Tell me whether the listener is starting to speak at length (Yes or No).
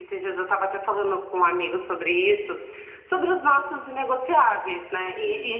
No